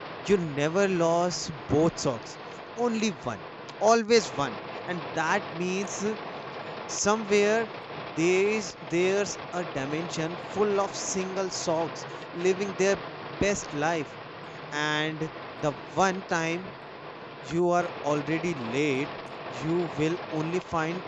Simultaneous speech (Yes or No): No